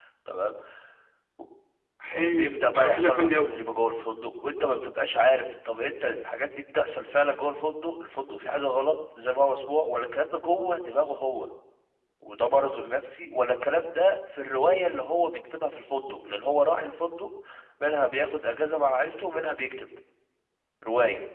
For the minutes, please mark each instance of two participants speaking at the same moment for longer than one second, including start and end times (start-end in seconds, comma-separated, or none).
2.1-3.5